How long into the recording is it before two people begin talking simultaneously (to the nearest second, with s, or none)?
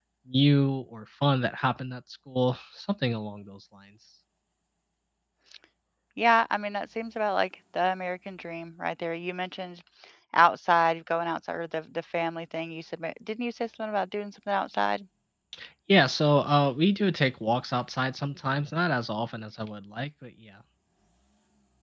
none